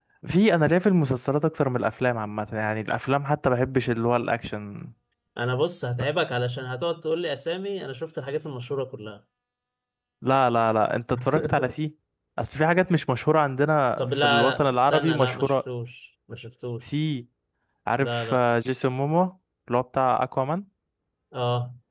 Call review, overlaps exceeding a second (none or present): present